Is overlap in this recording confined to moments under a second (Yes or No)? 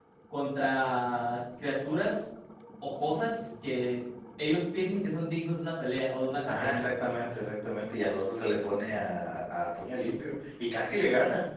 Yes